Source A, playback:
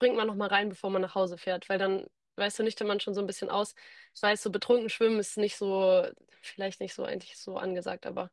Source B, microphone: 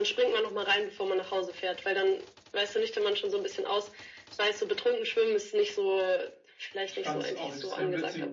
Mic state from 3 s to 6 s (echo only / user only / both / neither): echo only